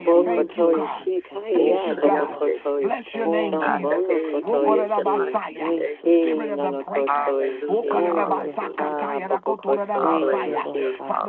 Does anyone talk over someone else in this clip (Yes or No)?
Yes